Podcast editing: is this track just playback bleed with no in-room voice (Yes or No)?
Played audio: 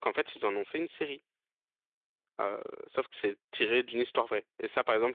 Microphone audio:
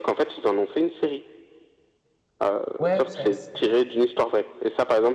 No